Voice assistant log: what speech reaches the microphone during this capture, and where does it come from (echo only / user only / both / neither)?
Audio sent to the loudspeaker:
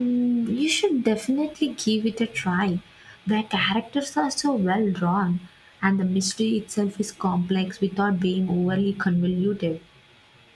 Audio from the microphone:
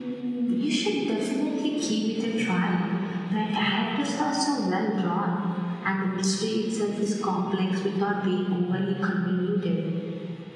echo only